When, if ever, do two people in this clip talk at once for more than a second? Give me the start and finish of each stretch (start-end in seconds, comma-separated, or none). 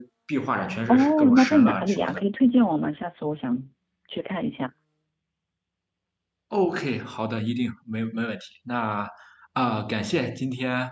0.9-2.2